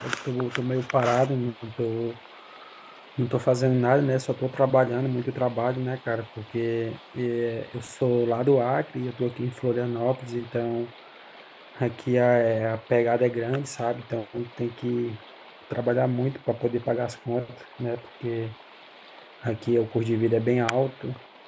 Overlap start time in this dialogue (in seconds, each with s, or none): none